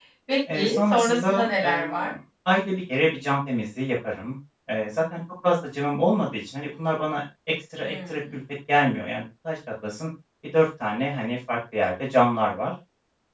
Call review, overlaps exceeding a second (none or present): present